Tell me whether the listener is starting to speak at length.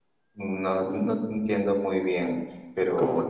Yes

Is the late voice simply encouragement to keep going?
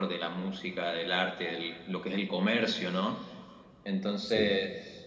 Yes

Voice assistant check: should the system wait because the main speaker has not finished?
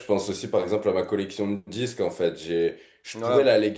Yes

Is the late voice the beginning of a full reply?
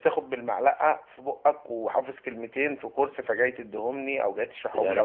Yes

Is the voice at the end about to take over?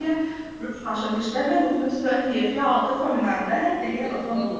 Yes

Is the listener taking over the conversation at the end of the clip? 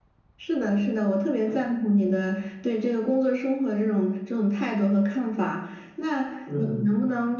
No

